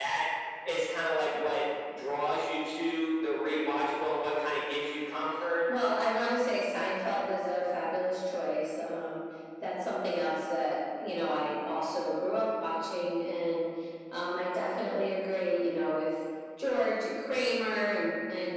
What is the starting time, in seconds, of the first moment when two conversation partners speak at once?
none

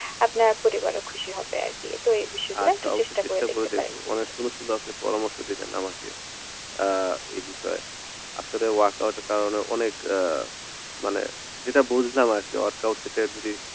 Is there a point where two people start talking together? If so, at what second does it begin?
2.6 s

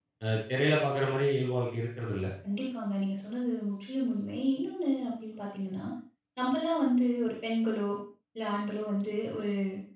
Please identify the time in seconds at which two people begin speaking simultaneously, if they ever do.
none

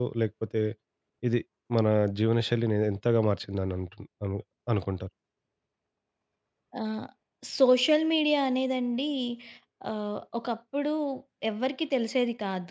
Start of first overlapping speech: none

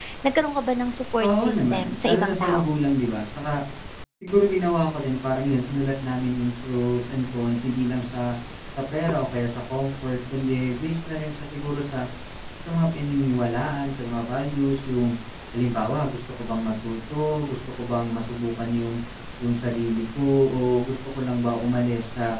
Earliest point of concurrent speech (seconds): 1.2 s

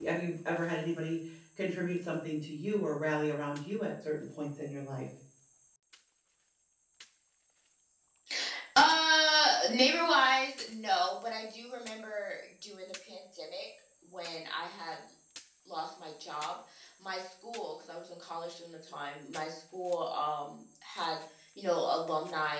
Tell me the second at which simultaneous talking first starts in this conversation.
none

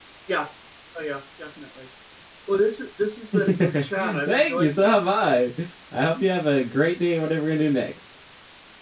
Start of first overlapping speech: 3.3 s

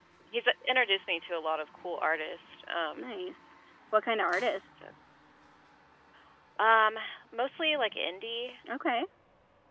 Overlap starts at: none

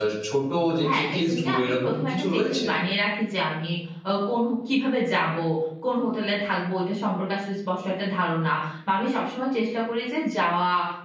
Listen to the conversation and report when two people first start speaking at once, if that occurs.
0.9 s

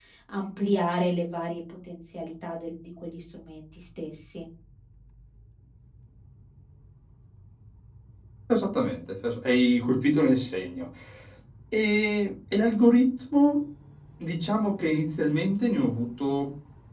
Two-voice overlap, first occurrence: none

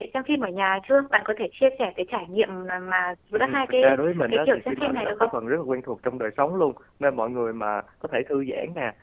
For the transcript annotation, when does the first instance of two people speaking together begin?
3.3 s

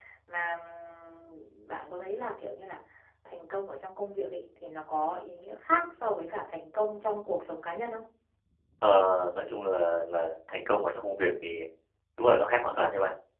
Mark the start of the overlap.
none

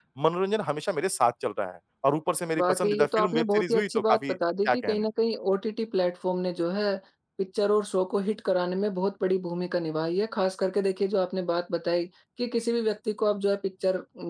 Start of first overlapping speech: 2.6 s

